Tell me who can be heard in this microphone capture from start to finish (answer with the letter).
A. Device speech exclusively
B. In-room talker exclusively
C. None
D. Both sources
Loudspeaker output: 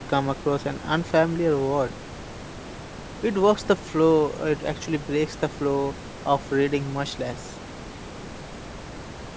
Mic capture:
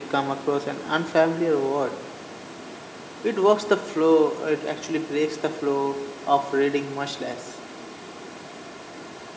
A